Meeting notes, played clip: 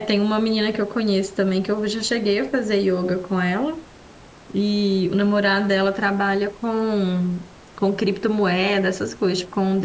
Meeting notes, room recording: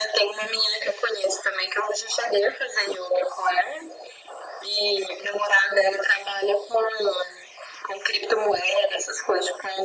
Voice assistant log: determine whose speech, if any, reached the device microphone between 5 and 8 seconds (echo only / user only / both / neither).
echo only